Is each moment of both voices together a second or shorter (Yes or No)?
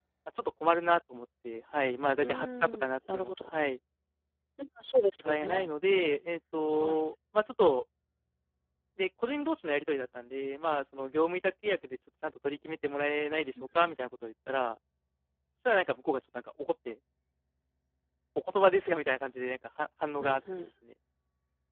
No